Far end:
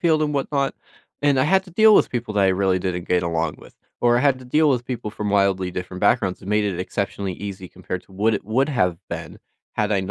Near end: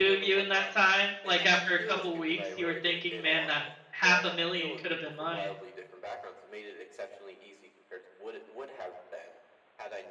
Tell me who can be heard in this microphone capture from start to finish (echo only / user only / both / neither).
both